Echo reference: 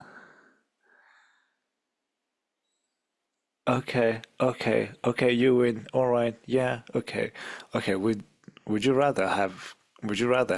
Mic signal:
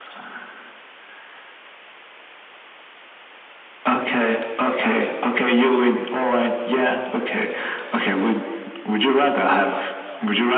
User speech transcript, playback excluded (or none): none